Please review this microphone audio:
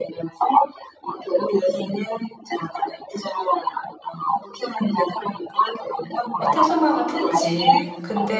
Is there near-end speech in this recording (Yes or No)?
Yes